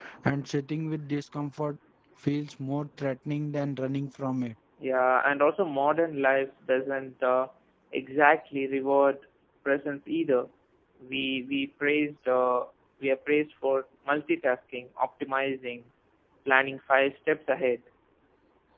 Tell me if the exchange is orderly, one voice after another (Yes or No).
Yes